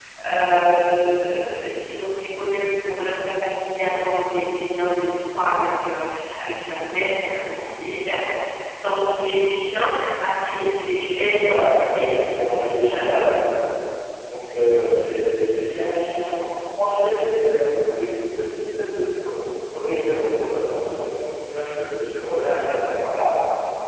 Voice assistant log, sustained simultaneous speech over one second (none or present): present